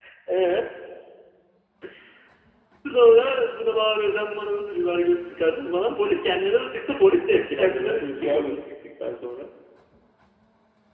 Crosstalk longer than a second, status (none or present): present